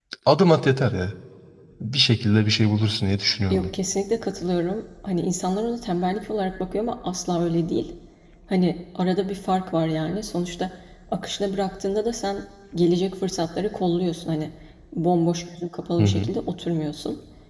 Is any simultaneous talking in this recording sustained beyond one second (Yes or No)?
No